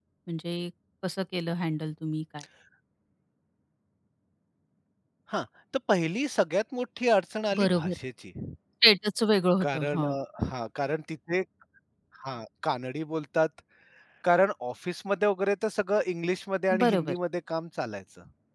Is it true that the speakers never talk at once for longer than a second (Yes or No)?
Yes